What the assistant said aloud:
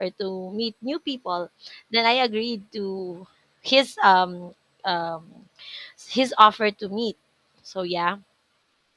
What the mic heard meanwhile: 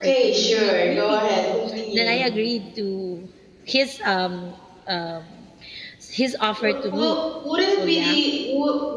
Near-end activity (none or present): present